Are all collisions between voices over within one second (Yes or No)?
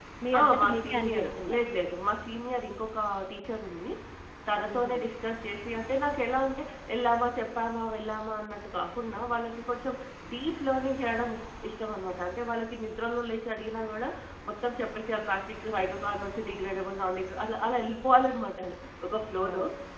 No